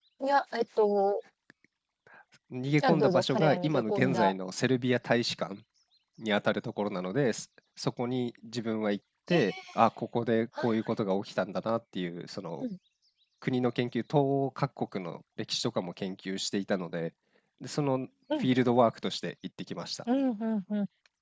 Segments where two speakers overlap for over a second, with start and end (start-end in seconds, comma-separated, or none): 2.8-4.3